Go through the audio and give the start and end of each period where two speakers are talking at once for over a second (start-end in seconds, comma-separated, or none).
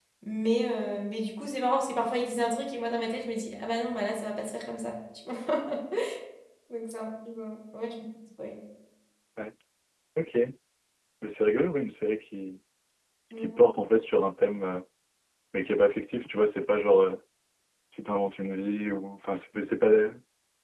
none